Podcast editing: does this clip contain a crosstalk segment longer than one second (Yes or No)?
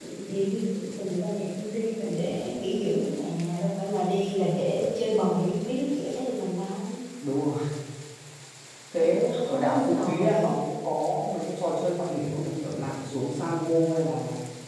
Yes